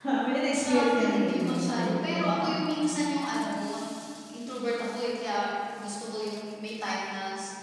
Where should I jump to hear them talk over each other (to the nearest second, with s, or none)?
1 s